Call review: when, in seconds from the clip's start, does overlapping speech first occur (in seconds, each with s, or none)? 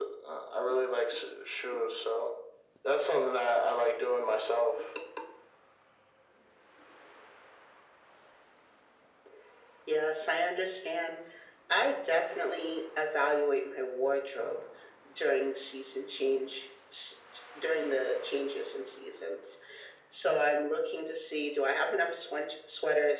none